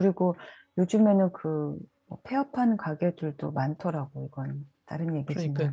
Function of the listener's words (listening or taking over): taking over